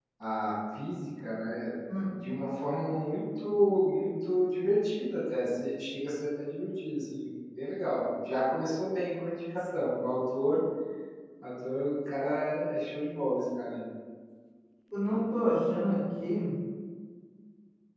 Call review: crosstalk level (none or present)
none